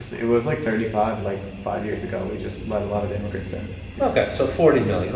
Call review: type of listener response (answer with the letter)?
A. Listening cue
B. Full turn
B